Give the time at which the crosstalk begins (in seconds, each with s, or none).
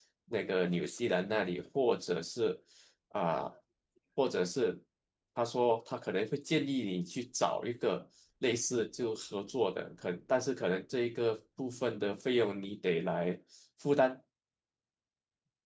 none